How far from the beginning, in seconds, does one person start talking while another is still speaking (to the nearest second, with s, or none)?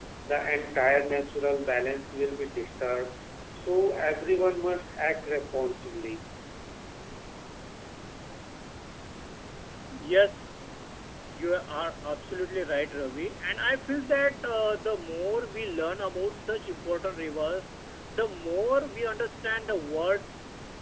none